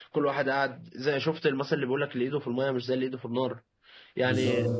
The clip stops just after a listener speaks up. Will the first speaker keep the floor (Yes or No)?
Yes